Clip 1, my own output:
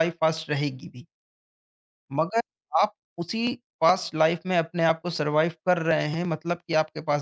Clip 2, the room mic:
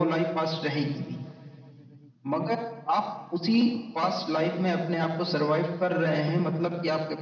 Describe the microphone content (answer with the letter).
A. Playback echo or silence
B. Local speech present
A